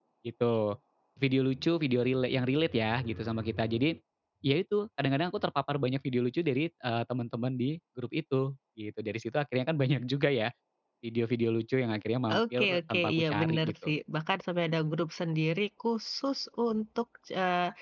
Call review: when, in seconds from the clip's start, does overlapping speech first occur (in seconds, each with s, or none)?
12.3 s